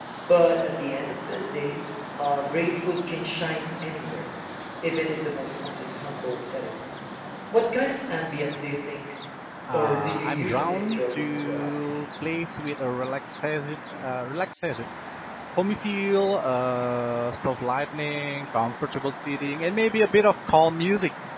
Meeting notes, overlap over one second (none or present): present